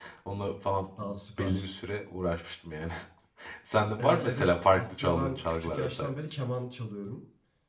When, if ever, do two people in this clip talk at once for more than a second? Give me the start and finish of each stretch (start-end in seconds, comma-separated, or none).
4.0-6.1